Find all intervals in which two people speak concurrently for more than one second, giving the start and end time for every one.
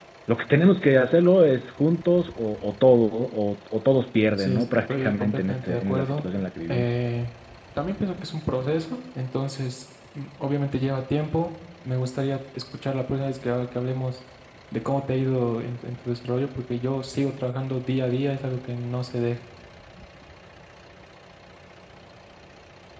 4.4-6.3

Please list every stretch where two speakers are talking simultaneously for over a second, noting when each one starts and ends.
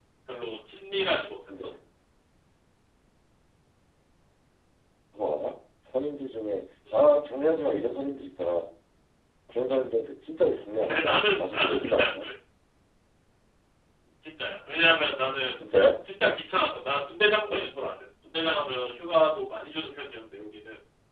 10.8-12.3

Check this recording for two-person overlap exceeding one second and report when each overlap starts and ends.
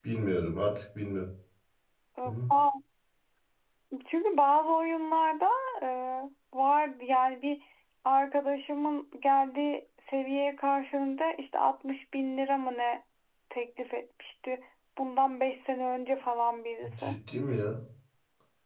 none

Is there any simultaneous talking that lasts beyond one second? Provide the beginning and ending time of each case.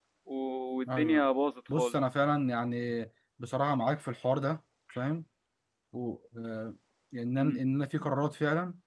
none

